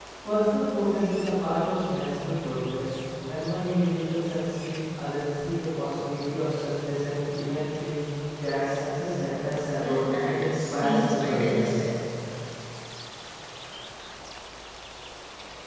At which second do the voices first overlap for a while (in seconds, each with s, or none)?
9.8 s